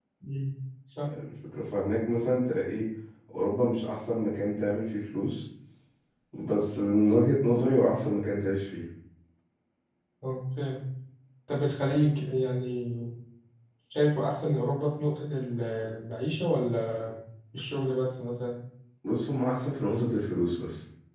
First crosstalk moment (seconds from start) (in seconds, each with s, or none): none